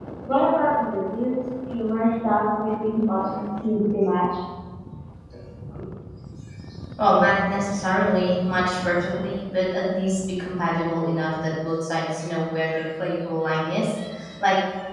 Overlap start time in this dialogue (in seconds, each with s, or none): none